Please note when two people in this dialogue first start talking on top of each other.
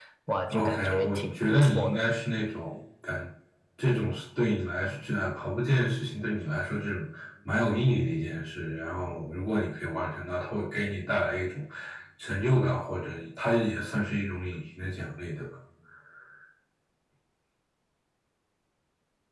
0.5 s

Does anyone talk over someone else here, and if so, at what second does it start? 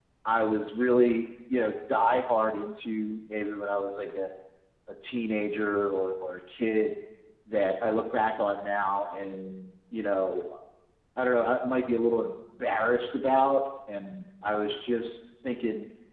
none

